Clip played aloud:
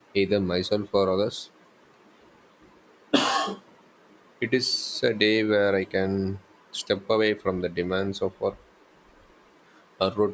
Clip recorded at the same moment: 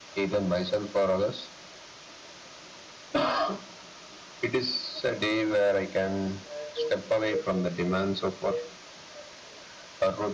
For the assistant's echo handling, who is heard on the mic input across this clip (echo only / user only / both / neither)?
both